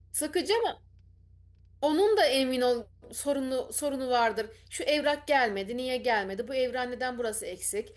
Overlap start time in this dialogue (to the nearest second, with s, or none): none